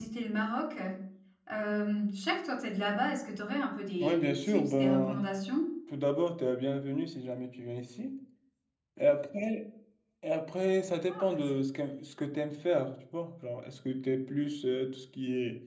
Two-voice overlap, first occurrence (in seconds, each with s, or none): 4.0 s